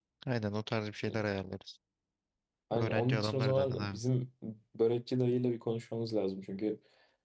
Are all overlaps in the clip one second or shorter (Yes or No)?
No